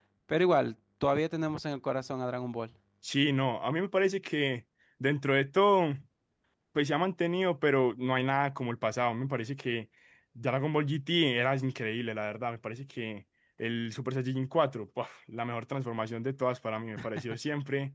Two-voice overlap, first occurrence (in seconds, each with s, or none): none